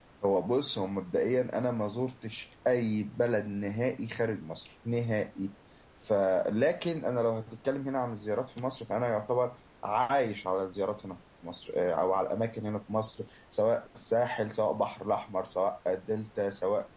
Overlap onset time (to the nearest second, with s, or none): none